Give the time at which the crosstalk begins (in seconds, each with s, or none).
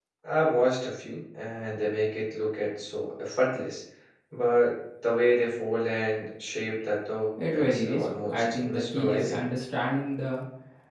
7.4 s